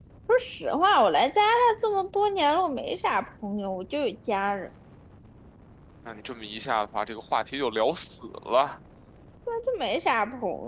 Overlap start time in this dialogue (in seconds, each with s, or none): none